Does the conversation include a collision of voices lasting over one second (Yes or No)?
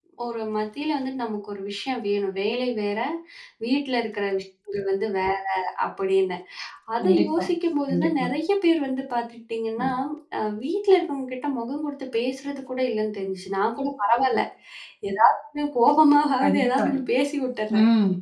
No